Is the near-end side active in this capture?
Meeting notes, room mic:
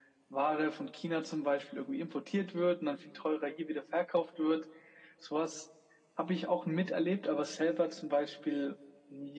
No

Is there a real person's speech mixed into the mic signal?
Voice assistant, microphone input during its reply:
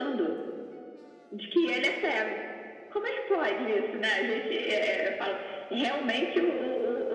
No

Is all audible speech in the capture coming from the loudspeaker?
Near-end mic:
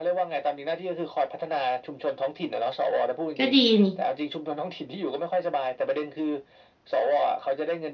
No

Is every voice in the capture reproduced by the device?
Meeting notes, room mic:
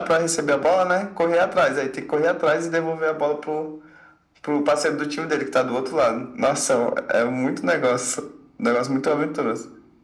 Yes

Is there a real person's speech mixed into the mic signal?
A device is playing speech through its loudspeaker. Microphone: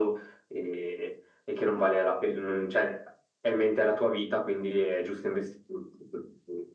No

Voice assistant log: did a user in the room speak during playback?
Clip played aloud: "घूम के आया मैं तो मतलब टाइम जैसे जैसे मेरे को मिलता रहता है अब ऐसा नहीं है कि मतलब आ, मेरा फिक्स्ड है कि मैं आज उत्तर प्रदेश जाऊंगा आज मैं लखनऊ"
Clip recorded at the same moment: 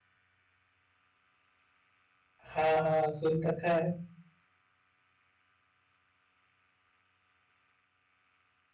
Yes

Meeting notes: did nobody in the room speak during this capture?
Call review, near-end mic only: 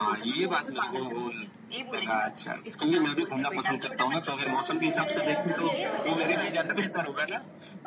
No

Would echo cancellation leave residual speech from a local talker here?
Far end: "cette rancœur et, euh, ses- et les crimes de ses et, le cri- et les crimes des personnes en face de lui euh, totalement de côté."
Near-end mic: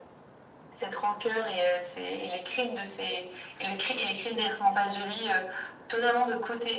No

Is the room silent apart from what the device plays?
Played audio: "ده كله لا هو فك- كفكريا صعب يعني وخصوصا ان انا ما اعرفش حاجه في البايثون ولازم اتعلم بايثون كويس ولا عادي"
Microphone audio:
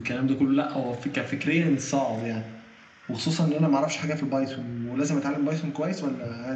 Yes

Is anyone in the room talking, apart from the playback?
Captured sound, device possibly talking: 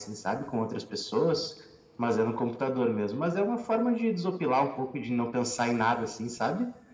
No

